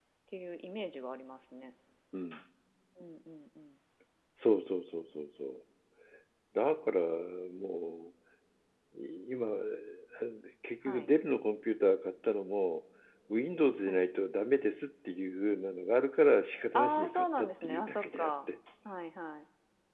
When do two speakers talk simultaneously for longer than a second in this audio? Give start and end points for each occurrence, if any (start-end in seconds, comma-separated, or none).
16.7-18.3